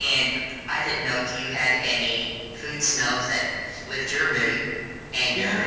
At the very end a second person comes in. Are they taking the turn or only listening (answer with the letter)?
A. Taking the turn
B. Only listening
B